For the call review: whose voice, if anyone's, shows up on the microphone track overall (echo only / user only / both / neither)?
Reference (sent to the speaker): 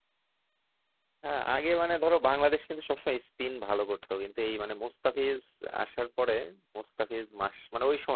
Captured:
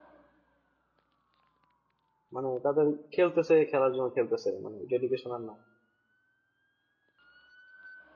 user only